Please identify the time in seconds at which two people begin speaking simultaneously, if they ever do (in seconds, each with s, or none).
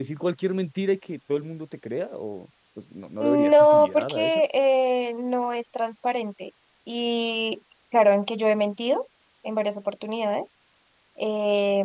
3.2 s